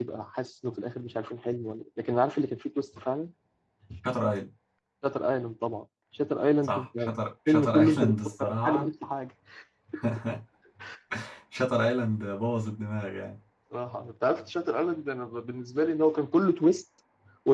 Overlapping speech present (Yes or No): Yes